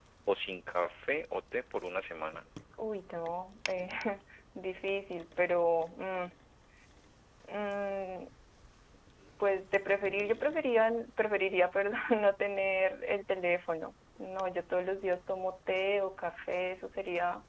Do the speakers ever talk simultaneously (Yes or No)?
No